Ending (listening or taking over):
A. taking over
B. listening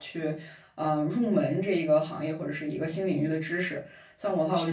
B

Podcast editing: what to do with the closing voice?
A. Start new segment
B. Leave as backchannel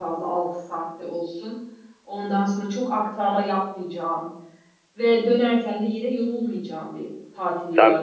A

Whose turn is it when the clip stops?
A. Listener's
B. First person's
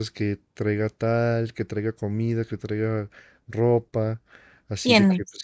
B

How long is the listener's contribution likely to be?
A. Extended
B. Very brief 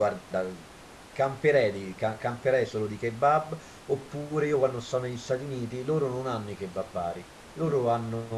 B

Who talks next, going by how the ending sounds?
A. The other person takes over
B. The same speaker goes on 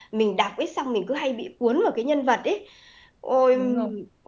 B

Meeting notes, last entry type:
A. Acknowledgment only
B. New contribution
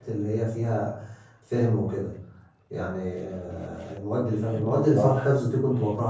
A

